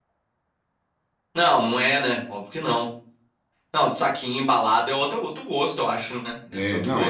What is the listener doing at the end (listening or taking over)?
taking over